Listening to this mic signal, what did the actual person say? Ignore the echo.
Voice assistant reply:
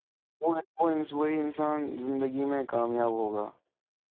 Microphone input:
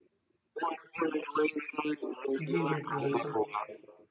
جی بالکل بالکل

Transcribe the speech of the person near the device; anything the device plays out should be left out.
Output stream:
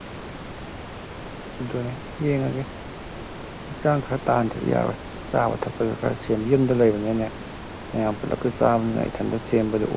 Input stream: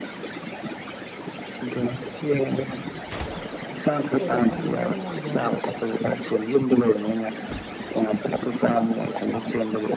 ꯆꯣꯡꯕ ꯐꯟꯕꯗꯣ ꯑꯝꯇ ꯉꯝꯗꯦ ꯍꯥꯏꯕ

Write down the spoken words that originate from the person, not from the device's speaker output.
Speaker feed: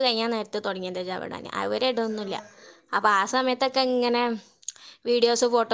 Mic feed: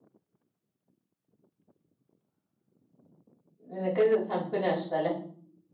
നിനക്ക് തൺപ്പെന്നെയാ ഇഷ്ട്ടല്ല

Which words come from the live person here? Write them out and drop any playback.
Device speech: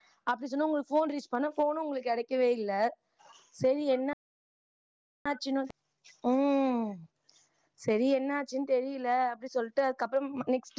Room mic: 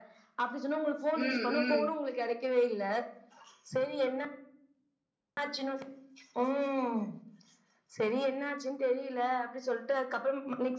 ம் ம்

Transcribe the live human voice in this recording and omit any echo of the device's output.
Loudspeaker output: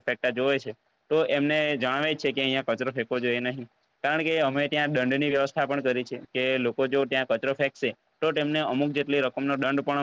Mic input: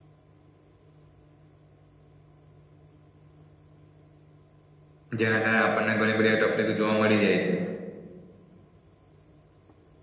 જેના કારણે આપણને ઘણી બધી તકલીફ જોવા મળી જાય છે.

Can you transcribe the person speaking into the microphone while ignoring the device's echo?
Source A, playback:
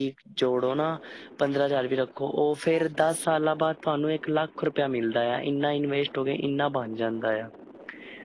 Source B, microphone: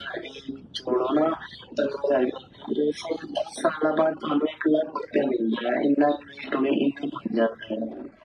none

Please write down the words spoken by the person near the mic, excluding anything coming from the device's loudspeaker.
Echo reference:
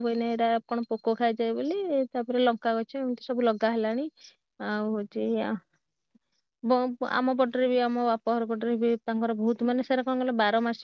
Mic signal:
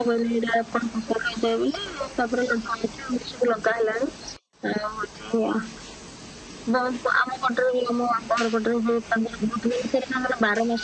none

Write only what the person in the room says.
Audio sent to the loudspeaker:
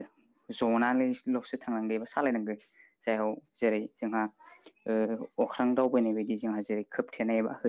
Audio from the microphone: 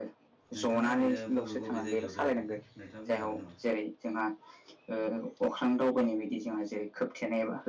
नोंथाङा ओरैनो बबे बबे जायगायाव बेरायफेरखो नोंथाङा बुंनो हागोन नामा

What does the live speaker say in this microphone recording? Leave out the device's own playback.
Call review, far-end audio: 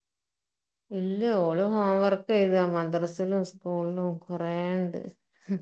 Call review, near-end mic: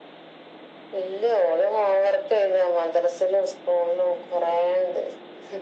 none

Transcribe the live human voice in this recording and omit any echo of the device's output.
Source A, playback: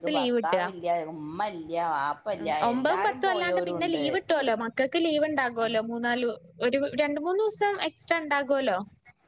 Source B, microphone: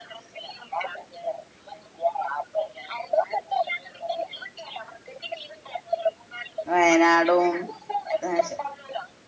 വയനാടും ആഹ്

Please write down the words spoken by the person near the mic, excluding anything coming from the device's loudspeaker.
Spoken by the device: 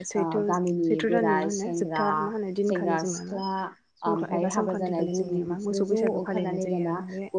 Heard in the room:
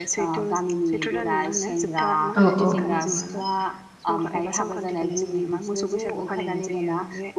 औ औ

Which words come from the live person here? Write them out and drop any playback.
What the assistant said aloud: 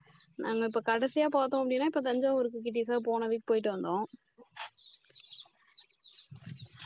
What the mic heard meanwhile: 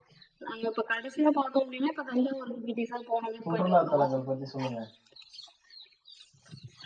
சுற்றுலா தலங்கள் பத்தி சொல்லுங்க

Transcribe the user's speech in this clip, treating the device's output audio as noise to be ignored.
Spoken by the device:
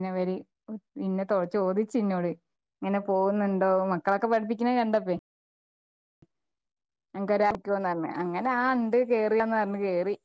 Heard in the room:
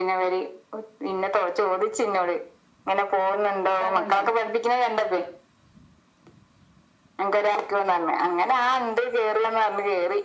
ഇതാണല്ലോ

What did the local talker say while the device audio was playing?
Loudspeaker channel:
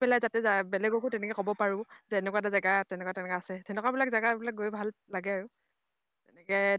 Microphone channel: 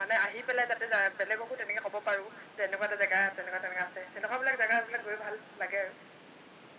none

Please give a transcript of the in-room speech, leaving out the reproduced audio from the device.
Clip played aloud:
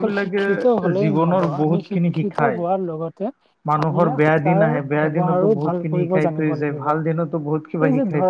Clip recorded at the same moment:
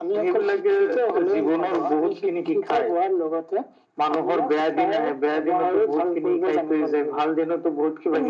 none

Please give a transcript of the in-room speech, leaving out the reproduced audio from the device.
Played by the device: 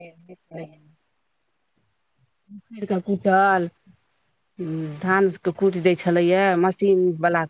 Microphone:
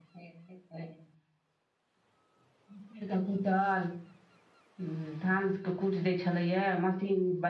none

